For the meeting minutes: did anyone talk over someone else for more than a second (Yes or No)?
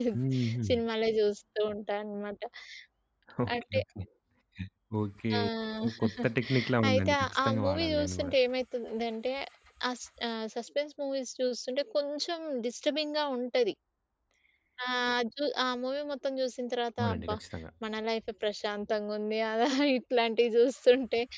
Yes